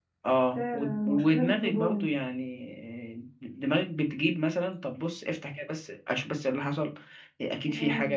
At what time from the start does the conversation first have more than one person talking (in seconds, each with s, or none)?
0.6 s